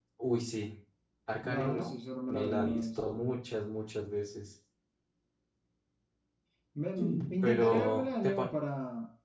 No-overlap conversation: No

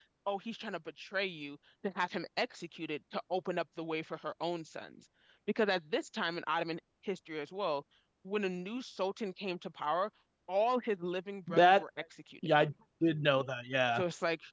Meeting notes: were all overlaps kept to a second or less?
Yes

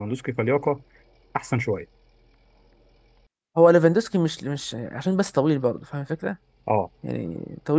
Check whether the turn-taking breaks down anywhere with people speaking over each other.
No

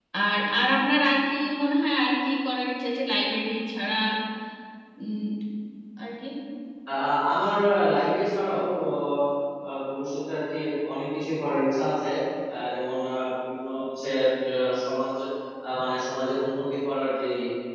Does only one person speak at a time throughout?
Yes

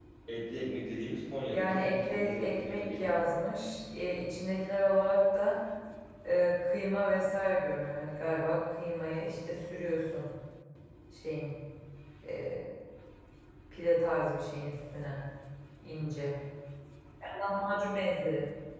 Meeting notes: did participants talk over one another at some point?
Yes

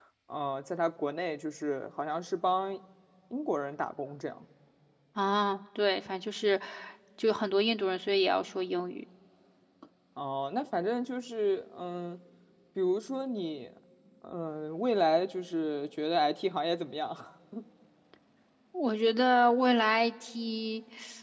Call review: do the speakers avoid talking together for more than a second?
Yes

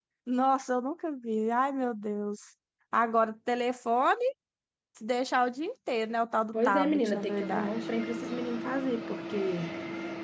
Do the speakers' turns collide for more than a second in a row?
Yes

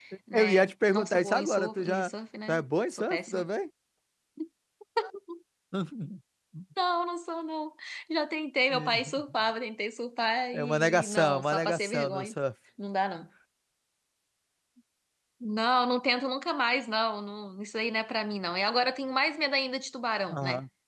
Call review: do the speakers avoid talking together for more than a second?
No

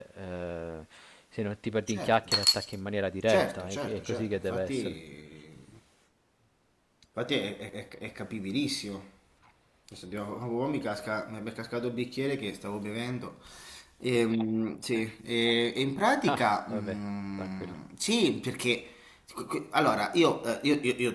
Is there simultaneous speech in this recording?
Yes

